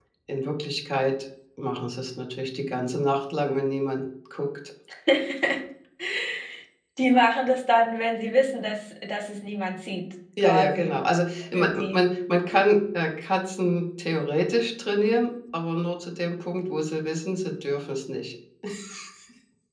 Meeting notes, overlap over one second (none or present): none